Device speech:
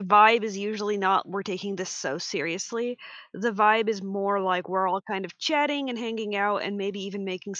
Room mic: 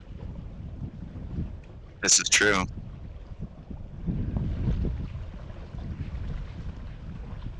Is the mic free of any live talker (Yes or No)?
No